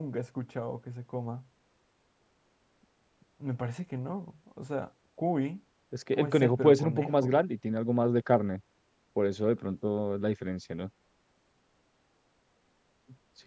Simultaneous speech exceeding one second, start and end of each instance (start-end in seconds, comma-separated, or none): 6.1-7.4